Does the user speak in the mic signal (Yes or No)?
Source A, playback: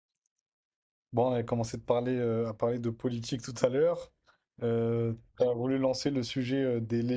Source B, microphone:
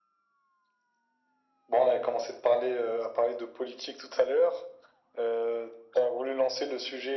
No